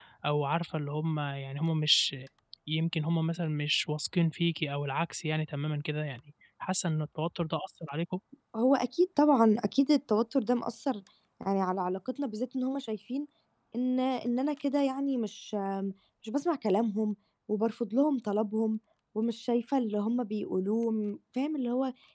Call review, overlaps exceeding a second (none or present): none